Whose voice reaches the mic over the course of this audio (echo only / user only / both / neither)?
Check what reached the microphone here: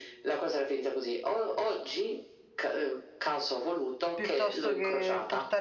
both